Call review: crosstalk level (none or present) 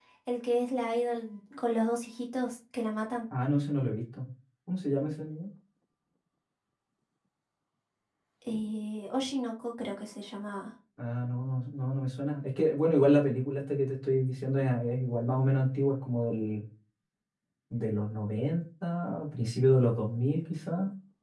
none